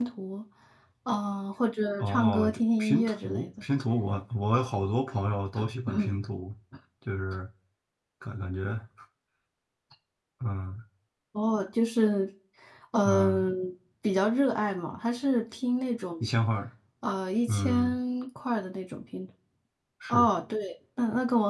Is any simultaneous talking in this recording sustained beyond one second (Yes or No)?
Yes